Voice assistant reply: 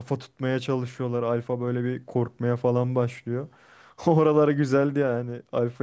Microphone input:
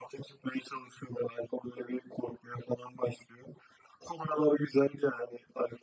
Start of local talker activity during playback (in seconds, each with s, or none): none